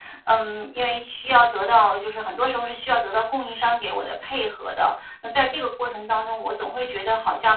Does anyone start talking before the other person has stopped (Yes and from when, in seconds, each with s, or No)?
No